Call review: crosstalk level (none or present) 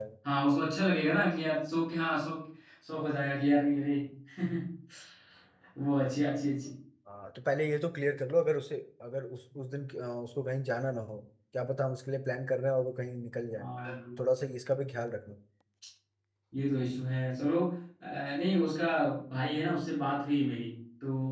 none